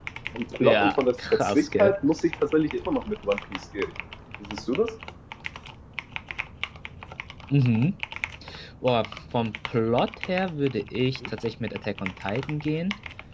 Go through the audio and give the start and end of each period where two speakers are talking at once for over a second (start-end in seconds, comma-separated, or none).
0.6-1.9